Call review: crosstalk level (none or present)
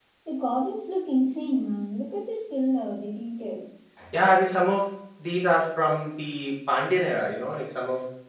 none